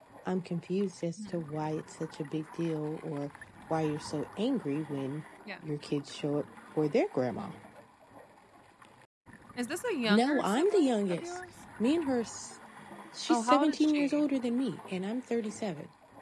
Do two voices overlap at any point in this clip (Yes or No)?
Yes